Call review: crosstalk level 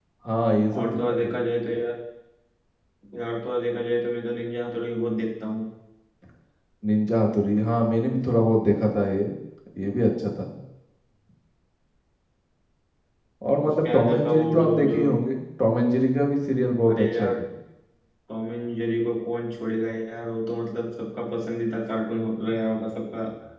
present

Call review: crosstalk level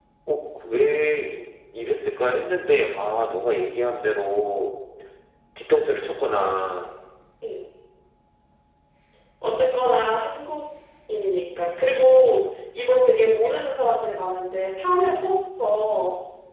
none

